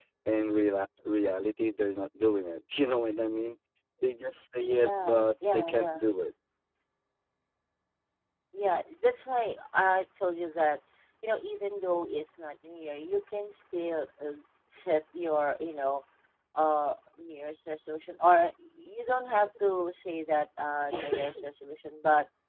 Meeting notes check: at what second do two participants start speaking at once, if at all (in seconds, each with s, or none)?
4.8 s